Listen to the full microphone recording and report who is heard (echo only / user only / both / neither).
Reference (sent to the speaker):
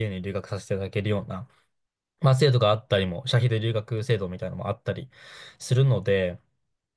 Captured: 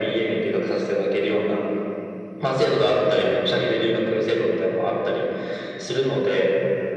echo only